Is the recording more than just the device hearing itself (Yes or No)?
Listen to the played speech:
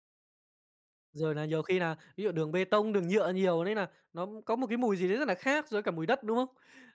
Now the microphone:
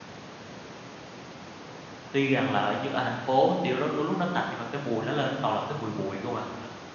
Yes